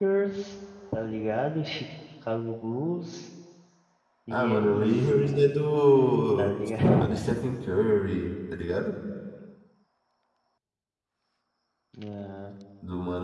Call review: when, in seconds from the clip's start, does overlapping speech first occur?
4.3 s

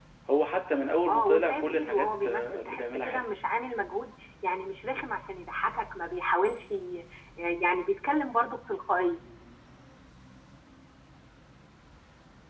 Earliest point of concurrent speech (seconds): 1.1 s

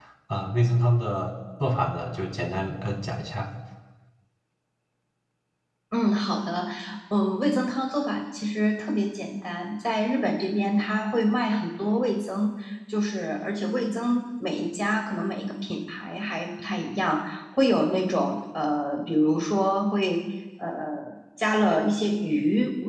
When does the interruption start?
none

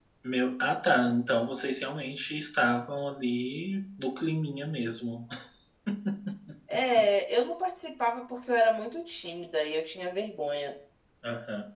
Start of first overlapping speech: none

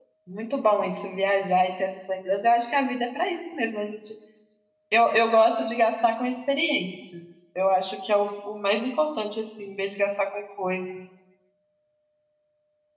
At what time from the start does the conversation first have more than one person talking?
none

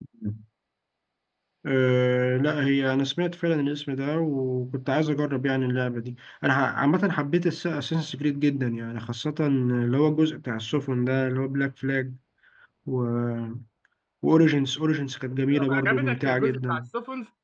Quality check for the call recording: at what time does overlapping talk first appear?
15.5 s

